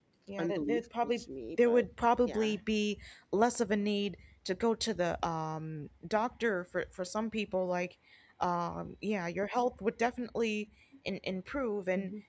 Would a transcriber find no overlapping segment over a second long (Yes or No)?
No